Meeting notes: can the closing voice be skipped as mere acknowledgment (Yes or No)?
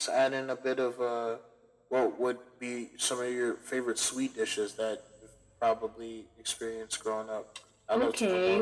No